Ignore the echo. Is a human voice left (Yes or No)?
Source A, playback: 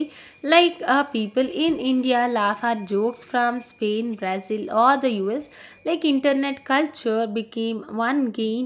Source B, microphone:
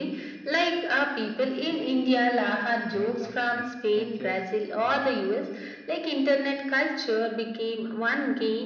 Yes